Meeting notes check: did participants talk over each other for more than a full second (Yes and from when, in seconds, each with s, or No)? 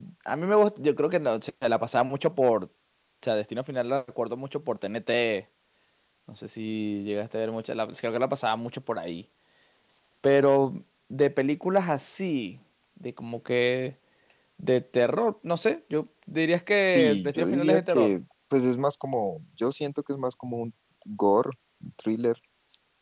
Yes, from 16.9 s